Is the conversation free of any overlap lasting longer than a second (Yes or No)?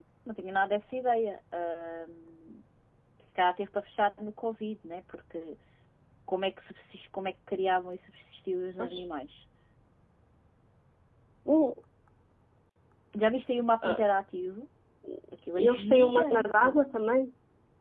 No